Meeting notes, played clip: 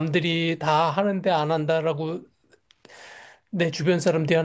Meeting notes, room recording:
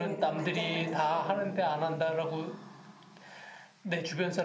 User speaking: Yes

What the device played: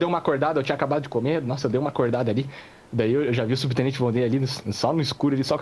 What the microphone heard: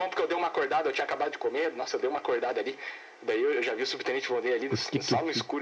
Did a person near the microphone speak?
Yes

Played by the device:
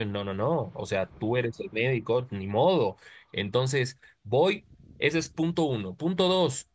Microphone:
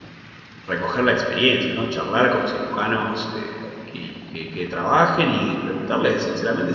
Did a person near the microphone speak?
Yes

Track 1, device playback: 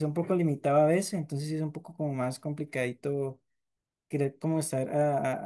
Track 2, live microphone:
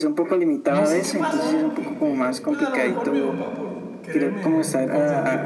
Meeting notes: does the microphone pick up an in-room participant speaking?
Yes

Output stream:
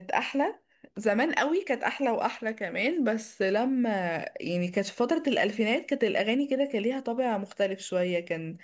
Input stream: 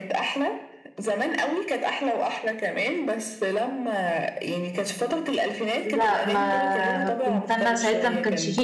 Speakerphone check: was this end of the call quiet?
No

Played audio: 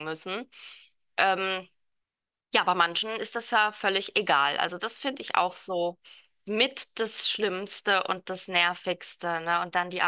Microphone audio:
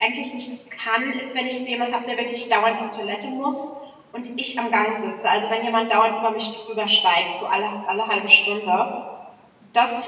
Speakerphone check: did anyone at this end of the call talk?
Yes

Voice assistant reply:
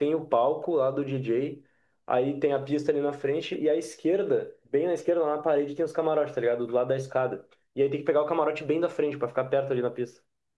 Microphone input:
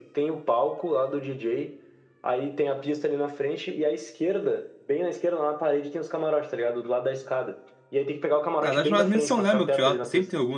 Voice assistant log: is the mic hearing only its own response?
No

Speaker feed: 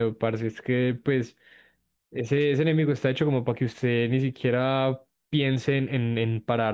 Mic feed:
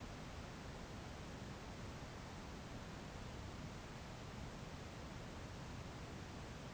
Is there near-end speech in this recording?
No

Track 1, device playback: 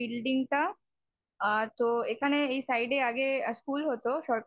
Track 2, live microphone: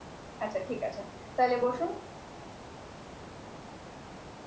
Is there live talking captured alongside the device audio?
Yes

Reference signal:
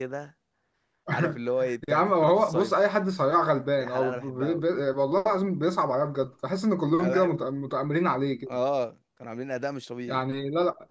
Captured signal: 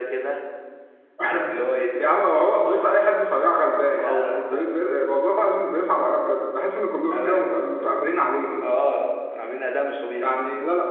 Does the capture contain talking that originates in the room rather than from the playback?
No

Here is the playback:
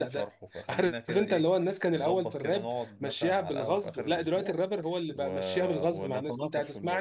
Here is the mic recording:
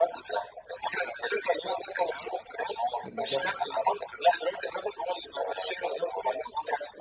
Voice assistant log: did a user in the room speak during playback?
Yes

